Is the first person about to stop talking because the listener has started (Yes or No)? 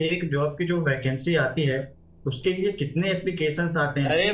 Yes